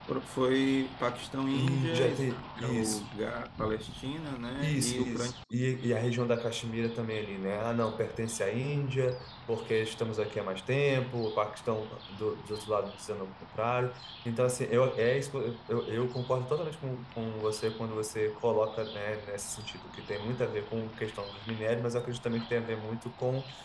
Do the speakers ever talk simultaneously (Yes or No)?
Yes